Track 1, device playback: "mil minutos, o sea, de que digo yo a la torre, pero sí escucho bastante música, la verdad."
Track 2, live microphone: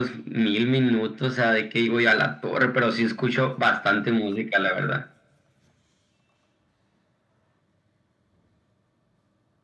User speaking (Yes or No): No